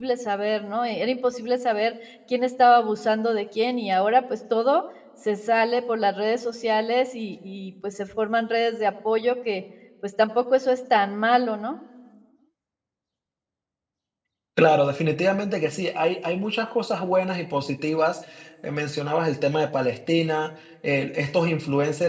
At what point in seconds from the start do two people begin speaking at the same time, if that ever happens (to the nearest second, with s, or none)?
none